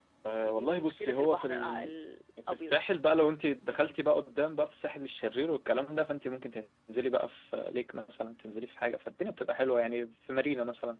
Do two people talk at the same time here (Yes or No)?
Yes